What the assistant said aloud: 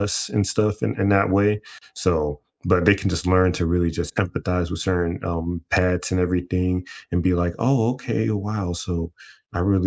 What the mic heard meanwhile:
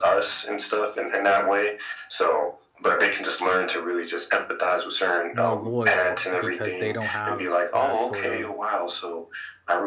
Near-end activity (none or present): present